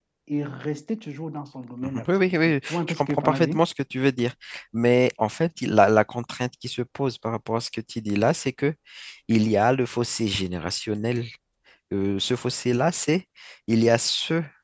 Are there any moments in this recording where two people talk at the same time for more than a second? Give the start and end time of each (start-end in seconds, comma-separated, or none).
1.8-3.6